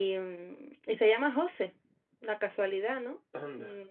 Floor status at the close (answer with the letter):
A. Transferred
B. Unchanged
B